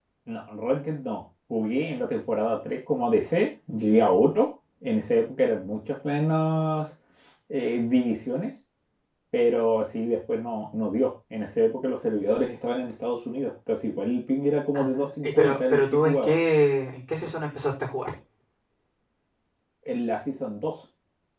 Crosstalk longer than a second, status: present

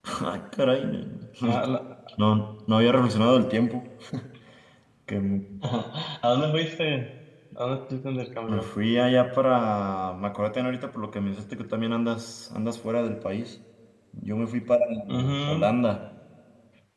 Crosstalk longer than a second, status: none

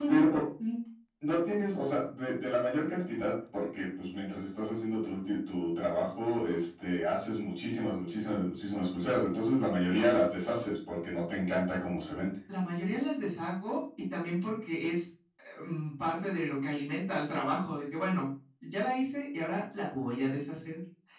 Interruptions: none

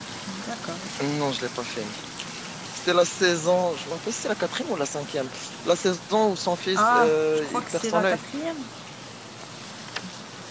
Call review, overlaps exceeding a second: present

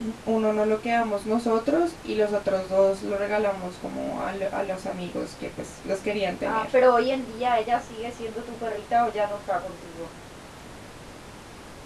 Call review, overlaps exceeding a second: none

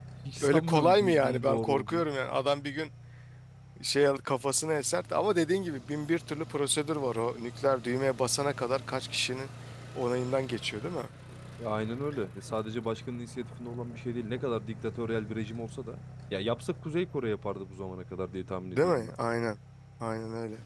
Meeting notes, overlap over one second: present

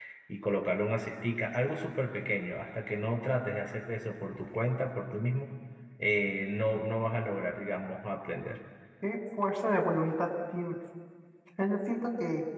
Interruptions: none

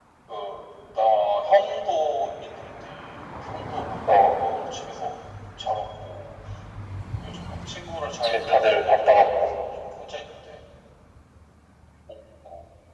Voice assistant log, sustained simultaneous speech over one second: present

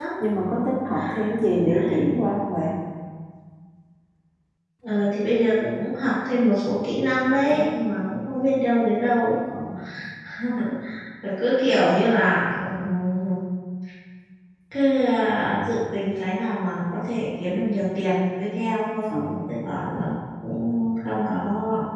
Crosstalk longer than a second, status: none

